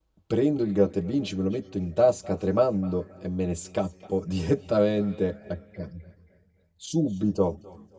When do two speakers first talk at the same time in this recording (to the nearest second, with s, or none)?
none